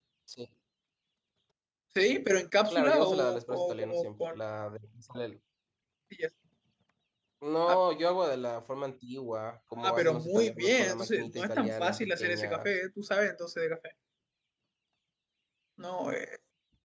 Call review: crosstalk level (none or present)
present